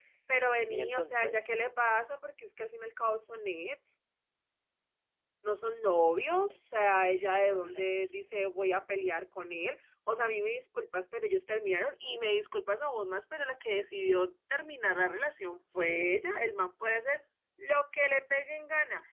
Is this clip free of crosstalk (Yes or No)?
No